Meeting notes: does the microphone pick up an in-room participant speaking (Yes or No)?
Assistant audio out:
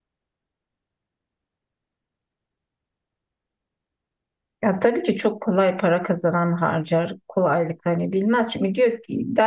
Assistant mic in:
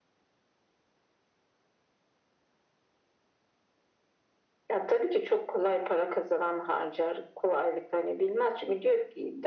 No